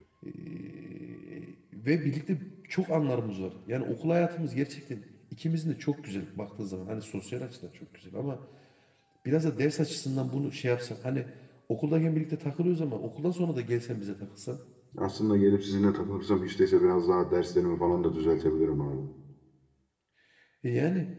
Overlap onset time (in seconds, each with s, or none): none